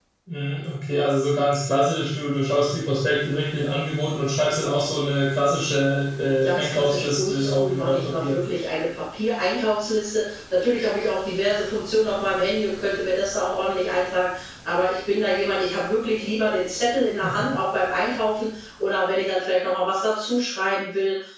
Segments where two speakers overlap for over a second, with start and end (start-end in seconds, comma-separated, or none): 6.4-8.4